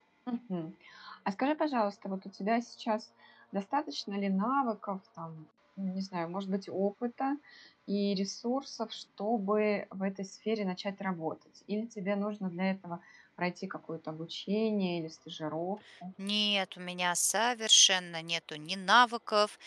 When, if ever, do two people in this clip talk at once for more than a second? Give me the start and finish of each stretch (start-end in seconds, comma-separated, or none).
none